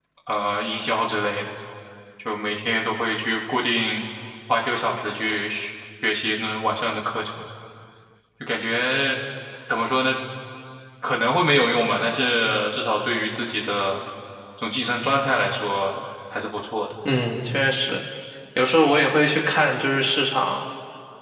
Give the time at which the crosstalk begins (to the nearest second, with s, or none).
none